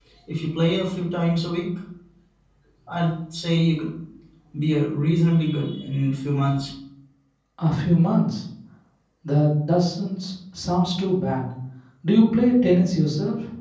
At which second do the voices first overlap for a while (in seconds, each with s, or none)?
none